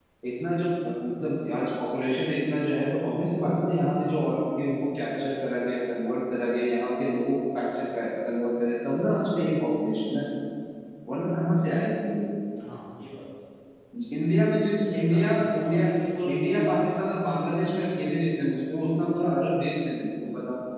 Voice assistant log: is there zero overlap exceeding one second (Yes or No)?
No